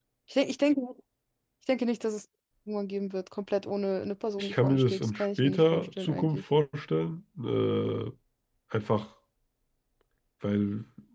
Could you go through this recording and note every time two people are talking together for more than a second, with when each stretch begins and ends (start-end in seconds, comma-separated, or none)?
4.4-6.4